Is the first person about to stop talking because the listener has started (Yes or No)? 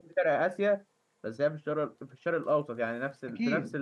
No